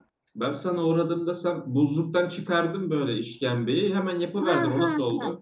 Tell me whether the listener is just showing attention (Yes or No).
No